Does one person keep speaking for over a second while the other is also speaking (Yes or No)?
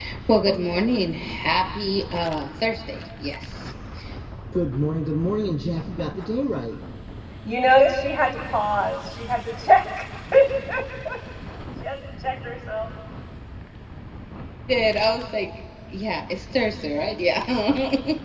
No